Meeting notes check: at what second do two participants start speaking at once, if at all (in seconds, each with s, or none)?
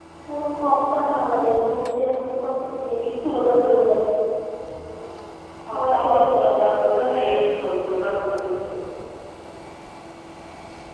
5.7 s